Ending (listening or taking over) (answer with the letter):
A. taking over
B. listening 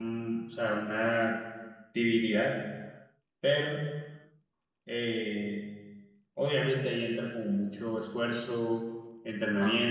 B